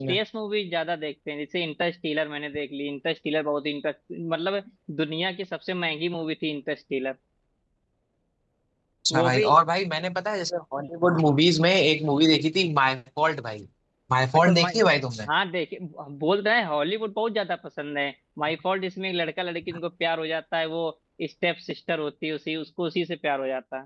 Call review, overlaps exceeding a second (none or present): none